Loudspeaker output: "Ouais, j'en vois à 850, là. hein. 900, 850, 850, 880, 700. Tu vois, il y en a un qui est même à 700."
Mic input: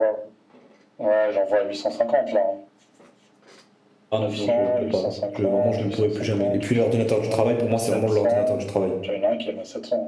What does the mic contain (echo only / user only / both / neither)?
both